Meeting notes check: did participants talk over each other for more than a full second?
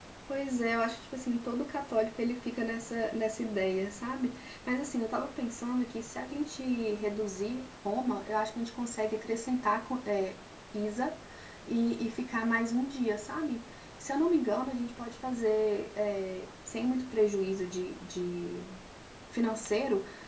No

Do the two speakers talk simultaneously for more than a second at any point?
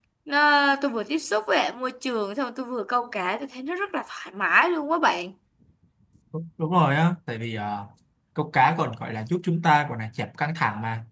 No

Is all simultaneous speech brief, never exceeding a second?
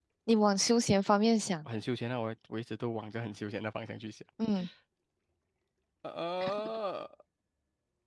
Yes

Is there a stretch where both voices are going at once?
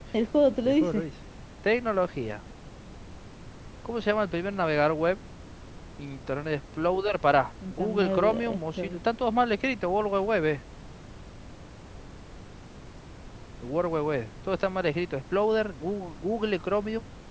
Yes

